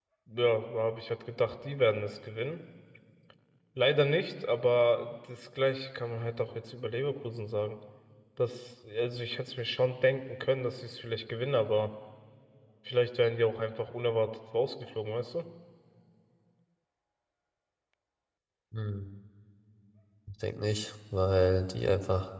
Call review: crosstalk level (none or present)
none